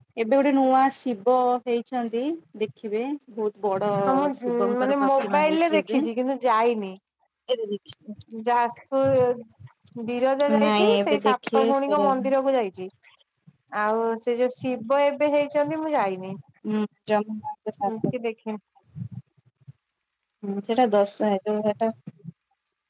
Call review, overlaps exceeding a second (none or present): present